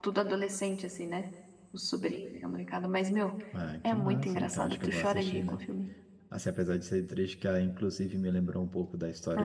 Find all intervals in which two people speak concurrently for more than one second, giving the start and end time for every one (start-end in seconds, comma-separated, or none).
3.9-5.6